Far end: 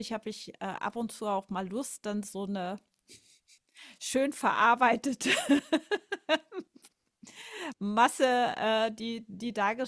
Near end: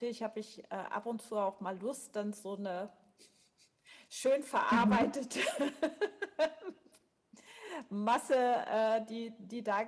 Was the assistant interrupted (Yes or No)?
Yes